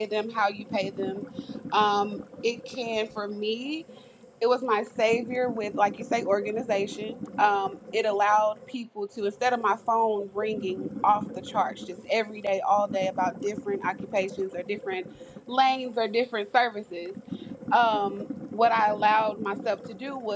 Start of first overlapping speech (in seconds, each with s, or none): none